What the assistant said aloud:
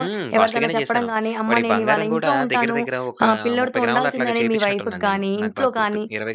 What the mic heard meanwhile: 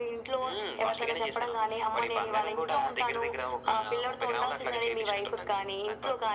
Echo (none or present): present